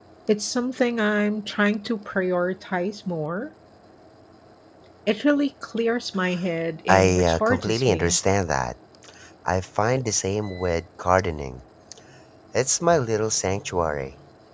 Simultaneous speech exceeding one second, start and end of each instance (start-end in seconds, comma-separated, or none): 6.9-8.2